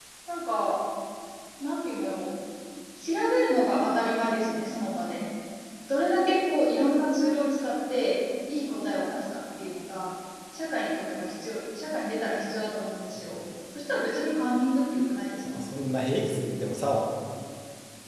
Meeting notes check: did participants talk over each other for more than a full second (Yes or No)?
No